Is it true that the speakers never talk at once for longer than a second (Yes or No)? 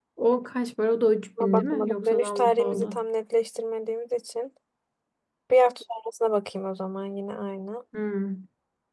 No